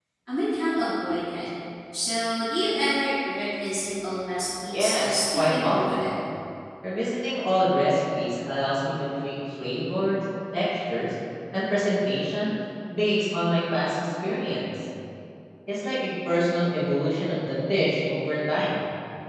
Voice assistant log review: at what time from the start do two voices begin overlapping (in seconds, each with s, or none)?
4.7 s